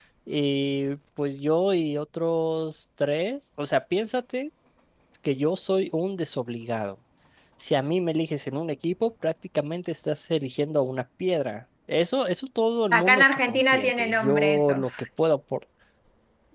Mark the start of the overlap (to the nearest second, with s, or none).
13 s